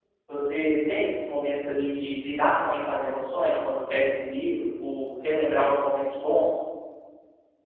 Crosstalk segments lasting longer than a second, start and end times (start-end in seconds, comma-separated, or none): none